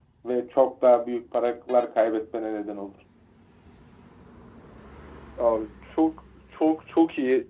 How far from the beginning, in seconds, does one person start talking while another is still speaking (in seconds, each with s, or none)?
none